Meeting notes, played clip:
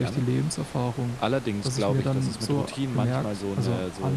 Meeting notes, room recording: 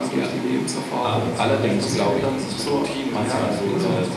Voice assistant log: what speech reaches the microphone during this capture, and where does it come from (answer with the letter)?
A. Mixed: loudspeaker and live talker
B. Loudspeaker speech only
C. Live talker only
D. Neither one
A